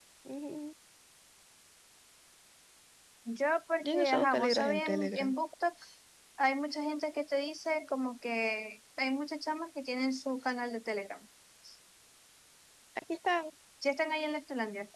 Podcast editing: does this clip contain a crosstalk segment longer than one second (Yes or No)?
Yes